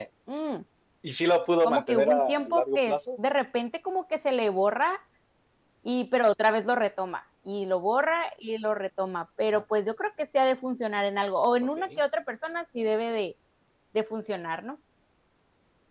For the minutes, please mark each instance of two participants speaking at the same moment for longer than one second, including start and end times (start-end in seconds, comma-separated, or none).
1.6-3.0